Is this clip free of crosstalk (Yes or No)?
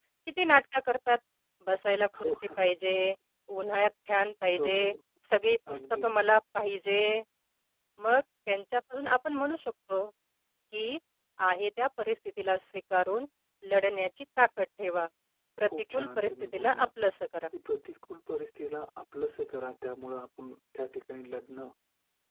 No